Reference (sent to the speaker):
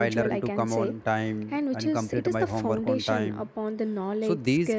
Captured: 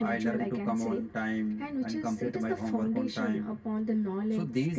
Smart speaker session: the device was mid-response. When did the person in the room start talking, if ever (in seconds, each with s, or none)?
none